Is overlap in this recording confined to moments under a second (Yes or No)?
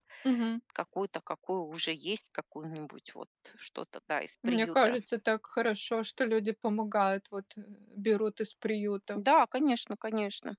Yes